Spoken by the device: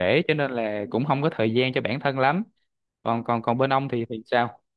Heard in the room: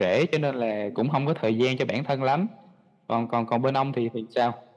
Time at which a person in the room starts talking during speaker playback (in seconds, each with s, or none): none